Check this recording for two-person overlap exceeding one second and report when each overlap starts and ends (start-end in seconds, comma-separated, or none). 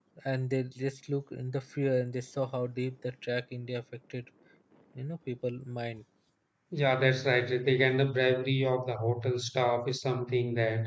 none